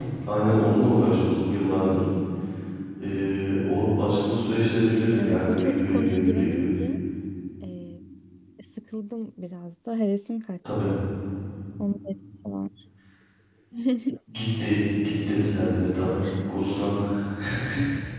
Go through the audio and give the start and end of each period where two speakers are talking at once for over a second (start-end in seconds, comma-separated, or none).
5.2-6.8